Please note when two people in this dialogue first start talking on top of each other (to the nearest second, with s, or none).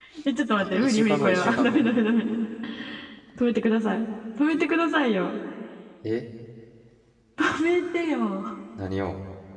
1 s